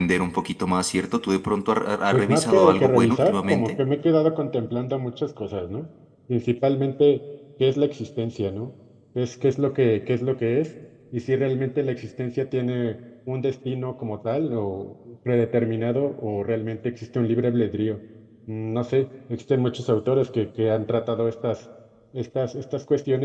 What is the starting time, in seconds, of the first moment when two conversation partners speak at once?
2.1 s

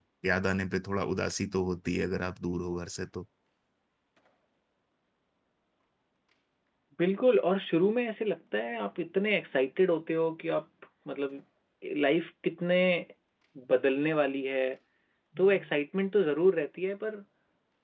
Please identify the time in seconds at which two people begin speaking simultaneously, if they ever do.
none

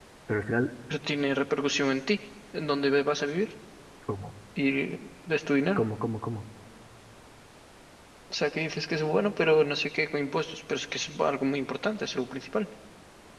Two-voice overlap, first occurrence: none

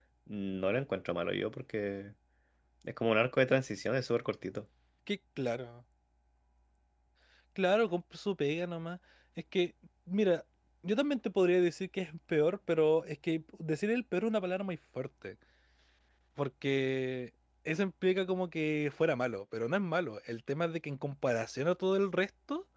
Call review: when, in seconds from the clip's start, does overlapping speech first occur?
none

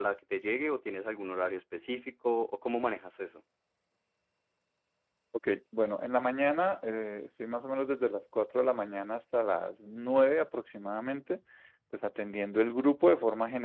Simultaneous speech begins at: none

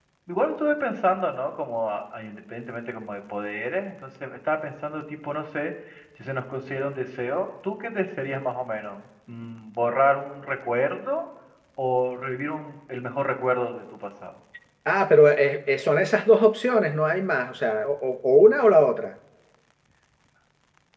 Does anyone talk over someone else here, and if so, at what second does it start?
none

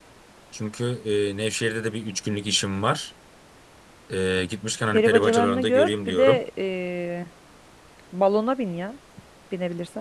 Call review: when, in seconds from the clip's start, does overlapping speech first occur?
4.9 s

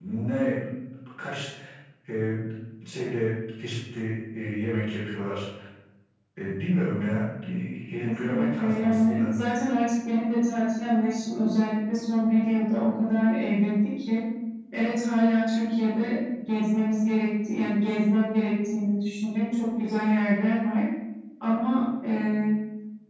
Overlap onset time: 8.0 s

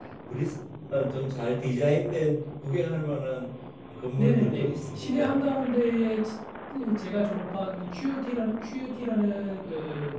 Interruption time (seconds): 4.2 s

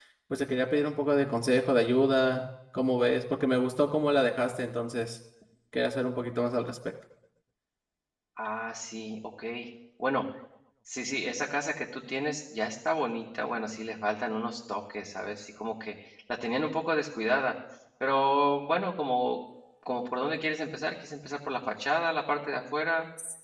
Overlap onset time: none

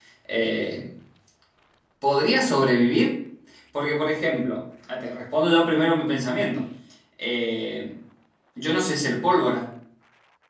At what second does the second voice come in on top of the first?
none

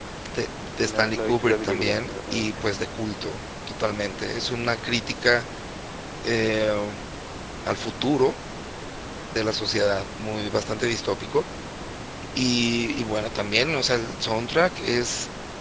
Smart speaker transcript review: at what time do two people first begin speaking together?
0.8 s

